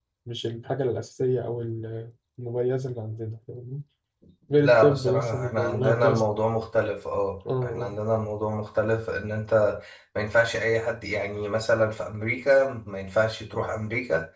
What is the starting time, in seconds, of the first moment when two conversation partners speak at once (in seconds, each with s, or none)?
4.5 s